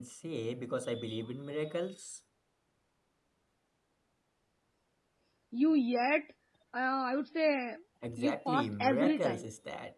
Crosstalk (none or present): present